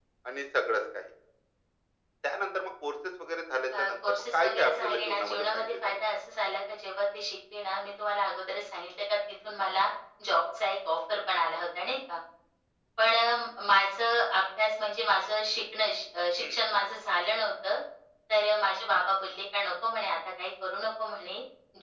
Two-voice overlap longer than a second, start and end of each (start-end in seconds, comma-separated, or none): 3.8-6.0